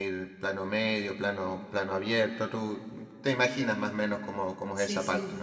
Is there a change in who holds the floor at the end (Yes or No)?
Yes